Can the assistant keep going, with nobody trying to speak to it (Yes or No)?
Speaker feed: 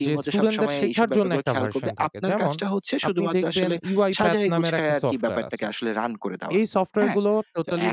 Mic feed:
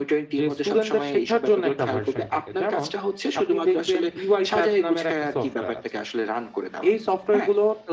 Yes